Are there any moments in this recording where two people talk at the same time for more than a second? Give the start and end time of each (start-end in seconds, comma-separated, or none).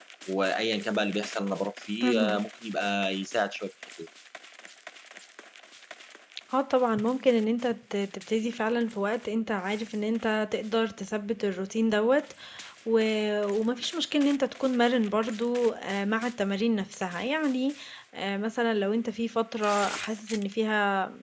none